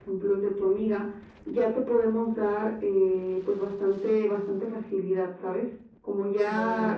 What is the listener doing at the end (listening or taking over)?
listening